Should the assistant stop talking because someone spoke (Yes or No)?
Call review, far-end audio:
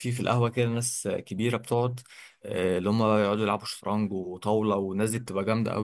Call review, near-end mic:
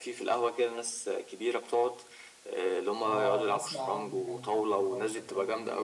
Yes